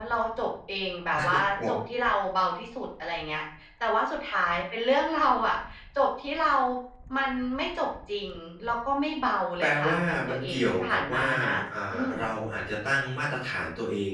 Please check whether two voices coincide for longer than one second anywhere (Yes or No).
Yes